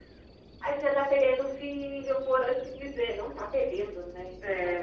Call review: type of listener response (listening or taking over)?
taking over